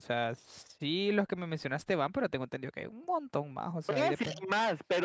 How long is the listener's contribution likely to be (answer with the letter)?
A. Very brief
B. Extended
B